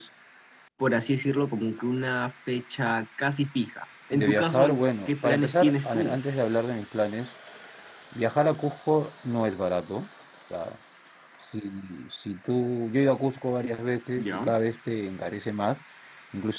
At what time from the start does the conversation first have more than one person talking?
4.1 s

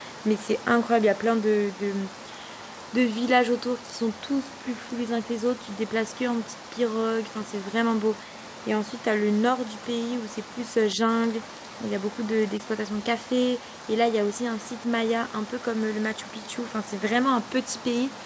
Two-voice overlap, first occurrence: none

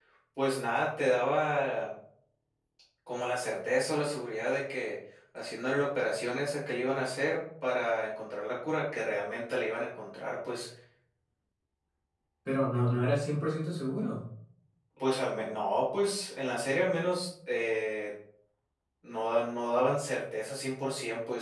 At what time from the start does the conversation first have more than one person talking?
none

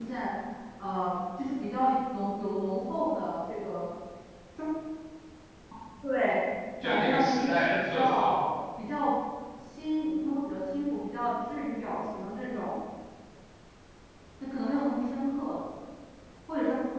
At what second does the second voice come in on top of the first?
6.8 s

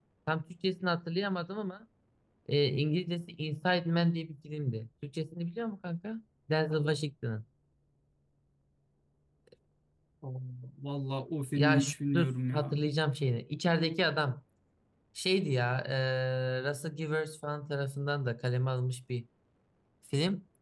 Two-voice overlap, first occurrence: 11.6 s

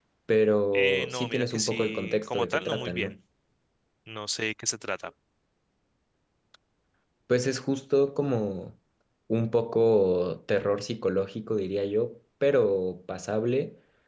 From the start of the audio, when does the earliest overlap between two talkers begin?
0.7 s

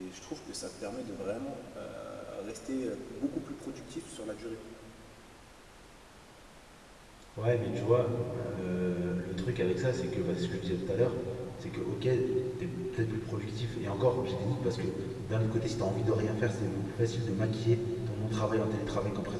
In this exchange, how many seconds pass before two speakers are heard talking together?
none

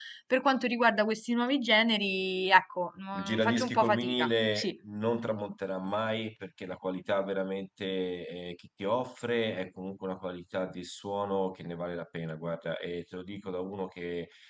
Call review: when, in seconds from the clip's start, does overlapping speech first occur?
3.1 s

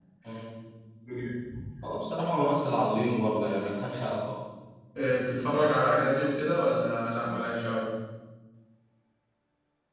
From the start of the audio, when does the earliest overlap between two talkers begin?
none

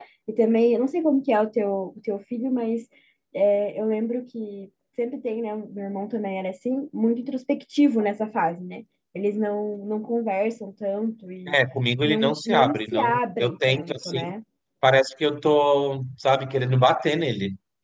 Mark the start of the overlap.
12.0 s

